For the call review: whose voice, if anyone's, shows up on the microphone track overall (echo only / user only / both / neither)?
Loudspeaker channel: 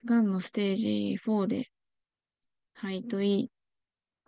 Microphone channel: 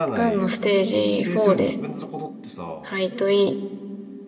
both